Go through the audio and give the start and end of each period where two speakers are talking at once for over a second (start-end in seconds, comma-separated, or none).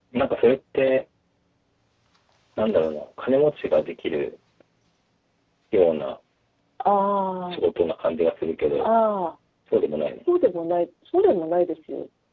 none